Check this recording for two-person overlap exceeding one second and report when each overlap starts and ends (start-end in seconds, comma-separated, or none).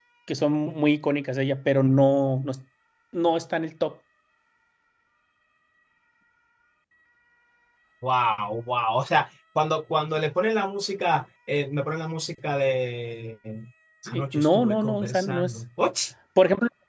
14.1-15.6